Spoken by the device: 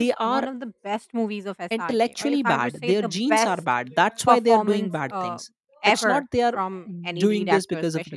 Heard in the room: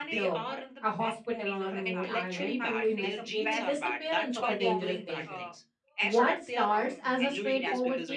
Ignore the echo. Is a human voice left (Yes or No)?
Yes